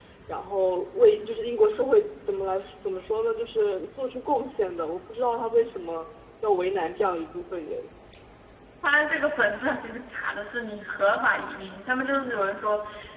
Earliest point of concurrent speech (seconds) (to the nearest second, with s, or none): none